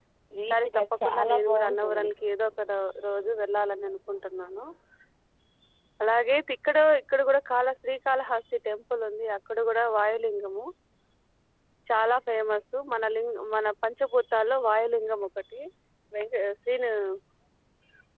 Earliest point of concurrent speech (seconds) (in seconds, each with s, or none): 0.5 s